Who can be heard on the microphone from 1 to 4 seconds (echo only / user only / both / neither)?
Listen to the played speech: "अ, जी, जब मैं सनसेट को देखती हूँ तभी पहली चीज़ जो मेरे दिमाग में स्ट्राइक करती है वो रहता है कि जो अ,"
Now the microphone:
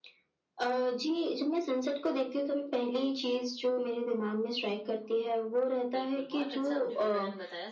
echo only